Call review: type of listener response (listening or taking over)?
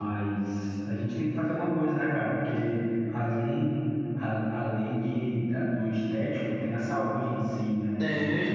taking over